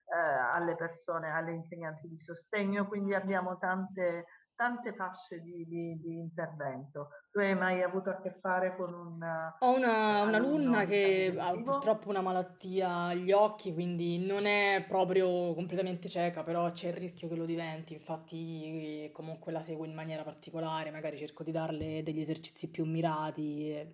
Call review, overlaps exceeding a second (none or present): present